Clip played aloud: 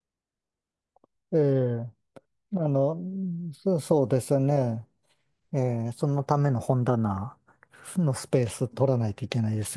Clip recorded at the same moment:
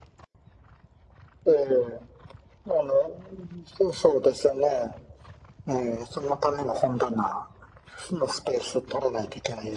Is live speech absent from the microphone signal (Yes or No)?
Yes